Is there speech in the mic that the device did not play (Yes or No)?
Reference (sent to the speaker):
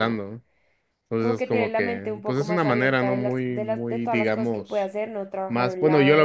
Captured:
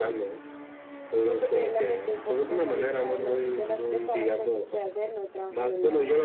No